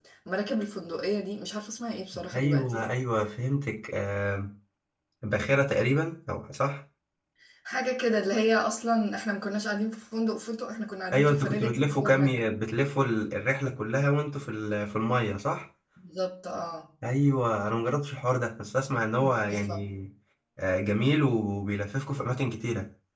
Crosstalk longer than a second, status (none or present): present